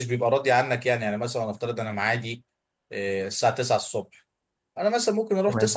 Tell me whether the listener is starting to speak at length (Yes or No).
No